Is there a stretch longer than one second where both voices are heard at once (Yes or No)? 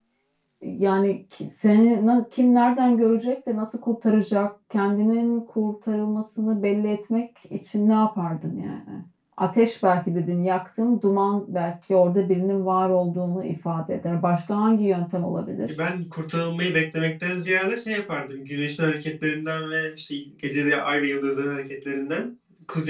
No